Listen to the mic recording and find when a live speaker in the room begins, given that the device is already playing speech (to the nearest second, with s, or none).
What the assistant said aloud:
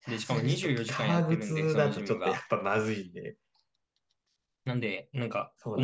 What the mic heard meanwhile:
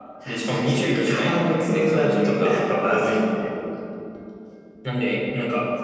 none